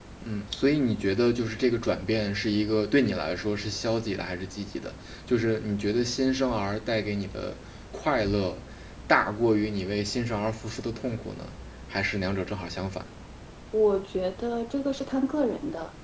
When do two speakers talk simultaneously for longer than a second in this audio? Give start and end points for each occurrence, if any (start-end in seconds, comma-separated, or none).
none